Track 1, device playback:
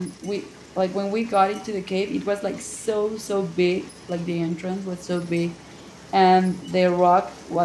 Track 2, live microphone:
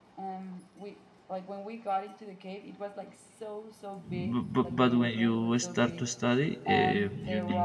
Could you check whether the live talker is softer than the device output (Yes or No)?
No